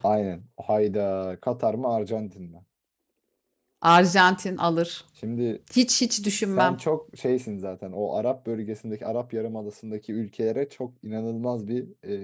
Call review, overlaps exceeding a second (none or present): none